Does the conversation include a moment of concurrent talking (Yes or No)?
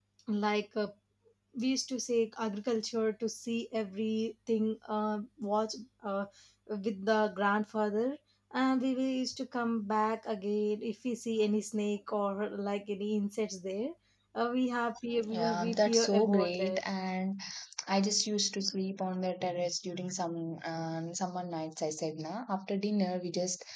Yes